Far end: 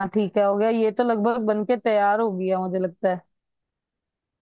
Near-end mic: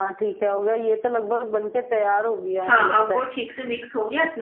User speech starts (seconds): 2.6 s

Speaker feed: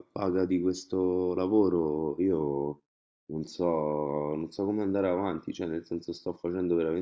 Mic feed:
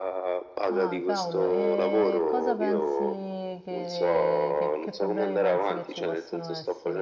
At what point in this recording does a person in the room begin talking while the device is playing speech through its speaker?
0.7 s

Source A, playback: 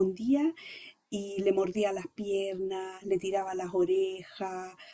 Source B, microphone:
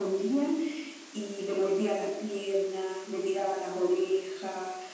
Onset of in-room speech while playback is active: none

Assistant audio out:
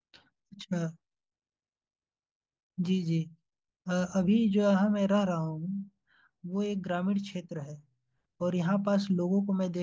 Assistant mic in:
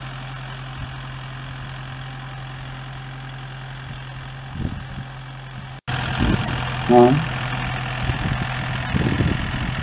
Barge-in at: 6.9 s

